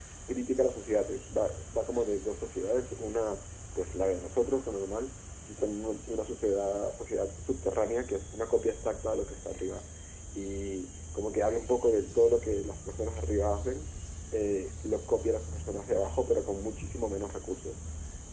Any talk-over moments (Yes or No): No